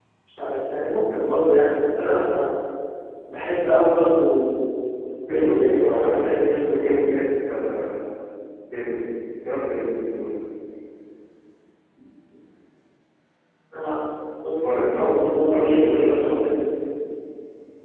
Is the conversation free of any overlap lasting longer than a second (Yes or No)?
No